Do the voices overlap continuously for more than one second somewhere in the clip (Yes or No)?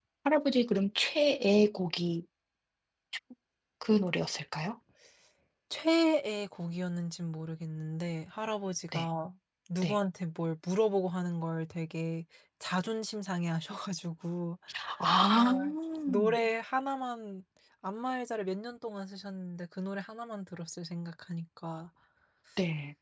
No